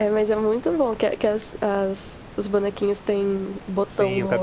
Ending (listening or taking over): taking over